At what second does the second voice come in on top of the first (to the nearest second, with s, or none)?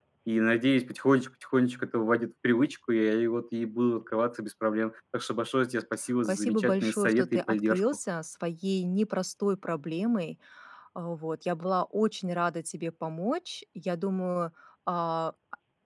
6 s